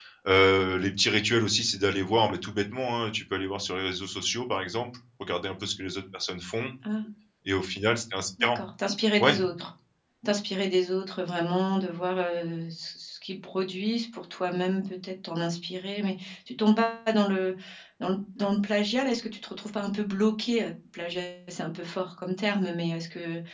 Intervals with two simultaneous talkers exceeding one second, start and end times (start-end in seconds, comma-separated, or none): none